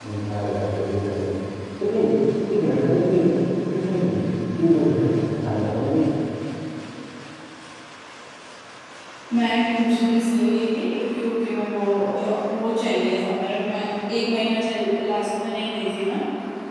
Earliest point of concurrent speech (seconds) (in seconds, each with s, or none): none